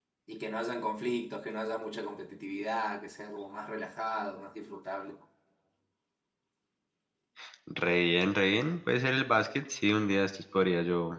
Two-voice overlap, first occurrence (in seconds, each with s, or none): none